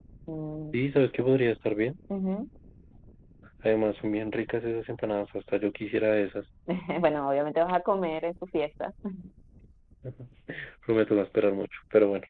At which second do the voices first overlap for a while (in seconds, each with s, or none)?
none